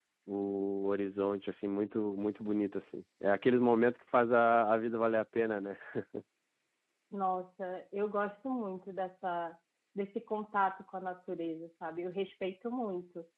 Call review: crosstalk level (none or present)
none